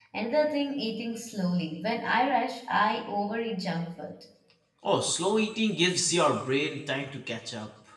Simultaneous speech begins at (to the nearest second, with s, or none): none